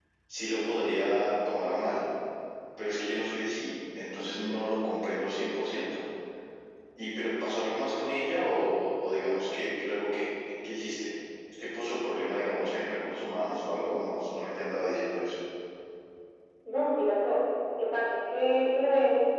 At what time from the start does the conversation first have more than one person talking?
none

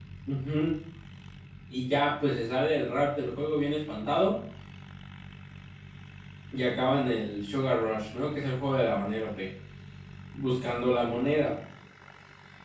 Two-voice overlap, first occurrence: none

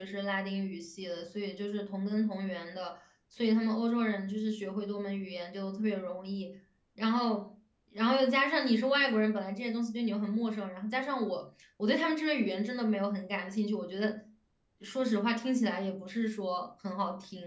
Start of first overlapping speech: none

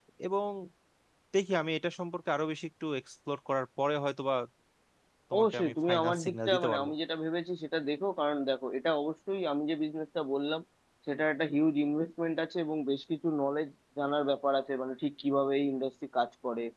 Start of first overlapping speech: 5.3 s

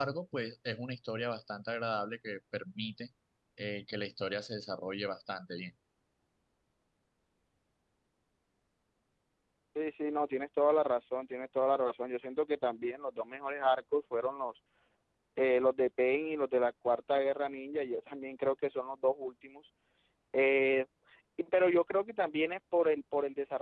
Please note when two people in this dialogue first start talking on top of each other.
none

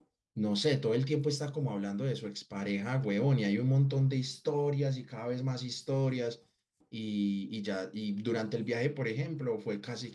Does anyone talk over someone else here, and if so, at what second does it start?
none

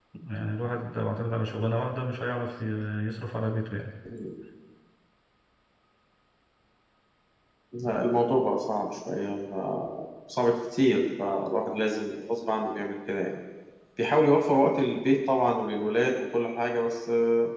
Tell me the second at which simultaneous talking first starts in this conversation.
none

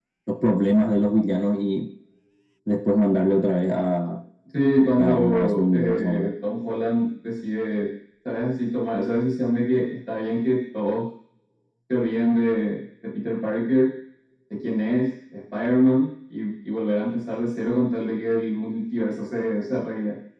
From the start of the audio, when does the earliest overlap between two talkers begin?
5.0 s

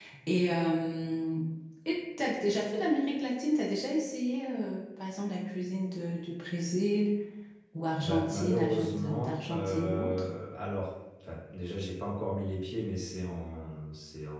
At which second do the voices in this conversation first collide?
8.0 s

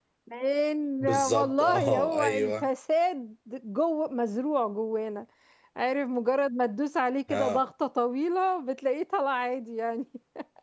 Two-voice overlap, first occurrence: 1.0 s

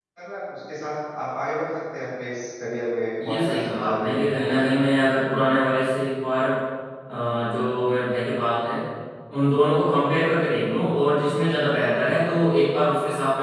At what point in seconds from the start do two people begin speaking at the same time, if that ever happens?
3.2 s

